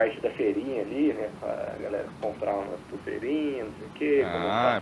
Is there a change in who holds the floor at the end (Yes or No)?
Yes